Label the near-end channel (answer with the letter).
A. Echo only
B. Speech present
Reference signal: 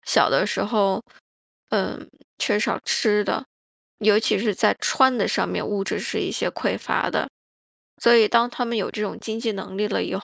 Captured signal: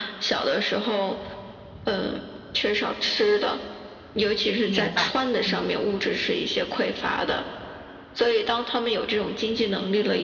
B